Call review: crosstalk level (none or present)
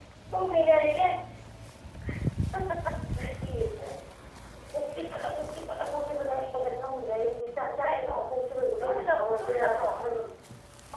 present